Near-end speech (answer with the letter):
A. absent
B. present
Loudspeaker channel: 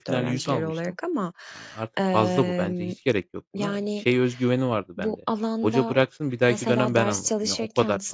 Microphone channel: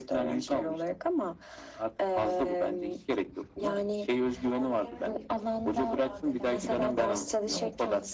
B